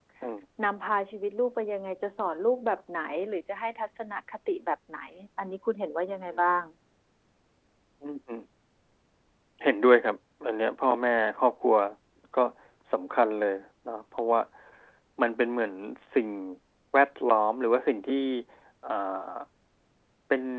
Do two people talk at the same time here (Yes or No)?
No